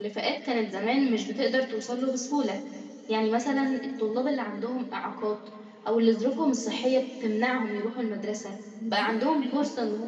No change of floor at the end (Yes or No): Yes